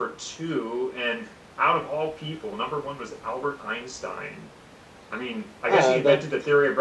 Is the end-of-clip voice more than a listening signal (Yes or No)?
No